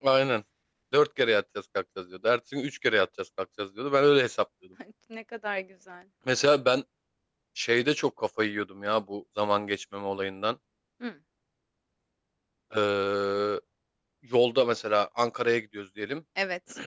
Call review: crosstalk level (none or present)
none